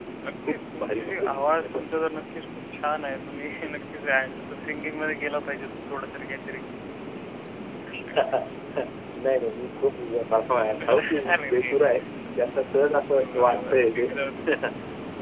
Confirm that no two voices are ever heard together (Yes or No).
No